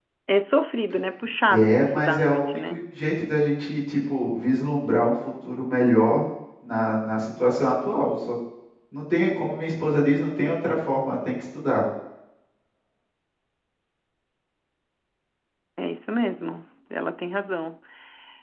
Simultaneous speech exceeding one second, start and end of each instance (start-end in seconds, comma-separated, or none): 1.5-2.8